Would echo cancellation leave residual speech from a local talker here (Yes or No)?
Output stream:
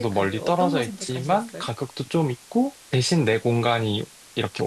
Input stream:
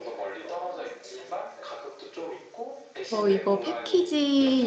Yes